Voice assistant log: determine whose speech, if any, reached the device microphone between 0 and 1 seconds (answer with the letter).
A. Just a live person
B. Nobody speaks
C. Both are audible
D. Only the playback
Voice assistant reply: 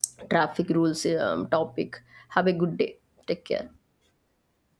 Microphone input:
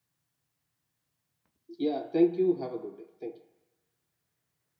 B